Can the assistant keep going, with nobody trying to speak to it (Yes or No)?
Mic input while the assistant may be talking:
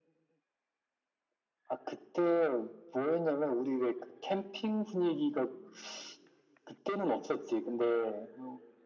Yes